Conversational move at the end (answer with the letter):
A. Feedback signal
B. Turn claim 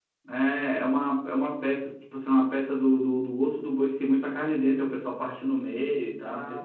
B